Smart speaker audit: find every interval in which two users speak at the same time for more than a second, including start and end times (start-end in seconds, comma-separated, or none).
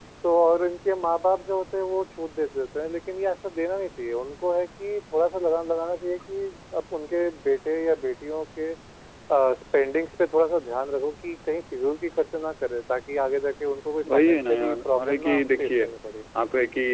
14.1-15.9